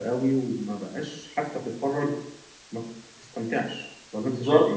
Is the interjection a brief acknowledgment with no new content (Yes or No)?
No